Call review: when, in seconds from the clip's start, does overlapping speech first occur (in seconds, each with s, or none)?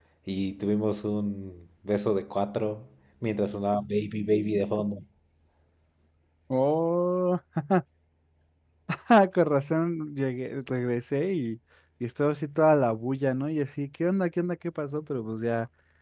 none